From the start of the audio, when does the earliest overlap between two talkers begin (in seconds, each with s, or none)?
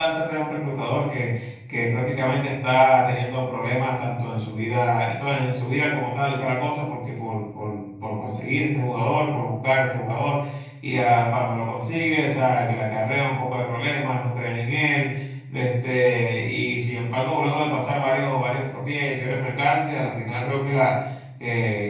none